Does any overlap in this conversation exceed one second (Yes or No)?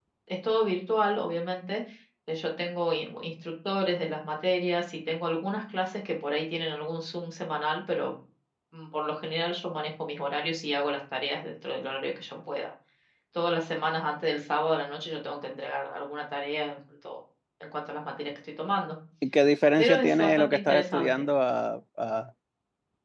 Yes